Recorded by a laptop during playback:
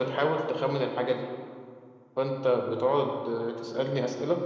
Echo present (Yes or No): Yes